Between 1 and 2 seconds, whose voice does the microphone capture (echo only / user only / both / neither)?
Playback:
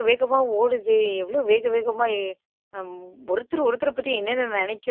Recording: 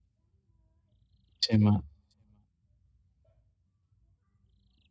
user only